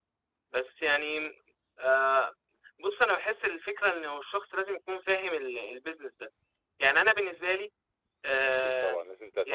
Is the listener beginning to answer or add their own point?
Yes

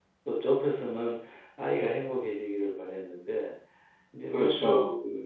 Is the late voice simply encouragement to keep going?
Yes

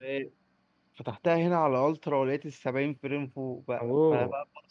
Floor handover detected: No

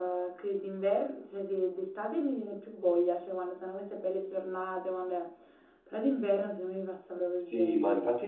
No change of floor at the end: No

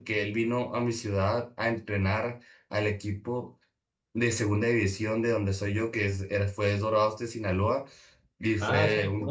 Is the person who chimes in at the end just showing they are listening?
No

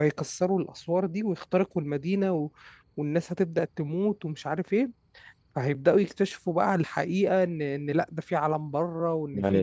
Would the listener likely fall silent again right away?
No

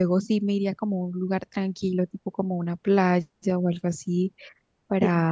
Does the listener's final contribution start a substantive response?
No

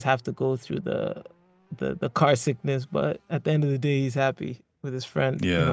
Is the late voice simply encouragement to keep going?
No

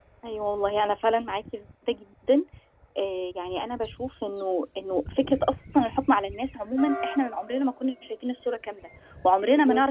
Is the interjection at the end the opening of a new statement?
No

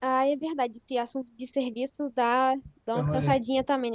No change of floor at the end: Yes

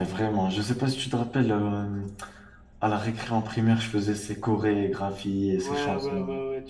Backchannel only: No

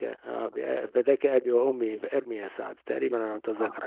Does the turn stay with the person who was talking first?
No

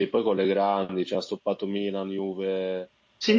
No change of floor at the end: No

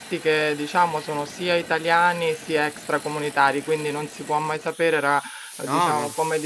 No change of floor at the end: Yes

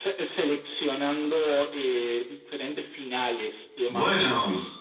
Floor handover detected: No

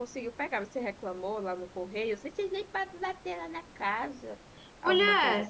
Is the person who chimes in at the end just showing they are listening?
No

